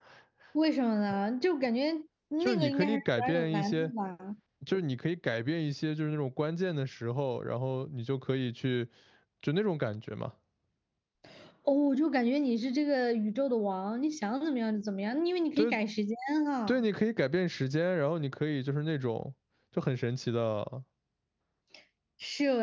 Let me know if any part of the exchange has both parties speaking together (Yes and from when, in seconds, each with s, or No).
Yes, from 2.4 s